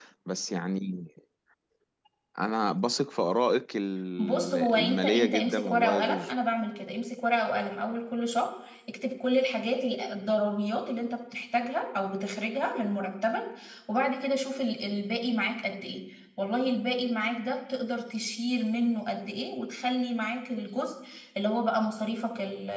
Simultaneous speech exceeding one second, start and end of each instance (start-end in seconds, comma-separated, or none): 4.2-6.3